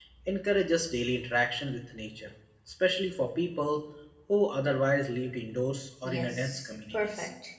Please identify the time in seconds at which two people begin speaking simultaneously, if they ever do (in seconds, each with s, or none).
6.0 s